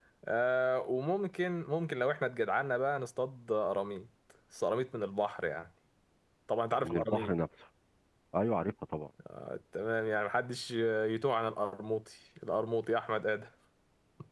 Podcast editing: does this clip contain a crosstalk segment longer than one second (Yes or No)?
No